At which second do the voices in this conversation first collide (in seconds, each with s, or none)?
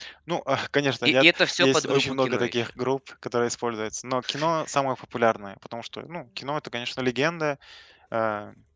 1.0 s